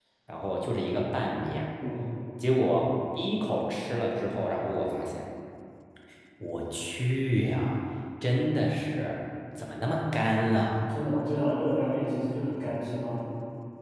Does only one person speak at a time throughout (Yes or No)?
Yes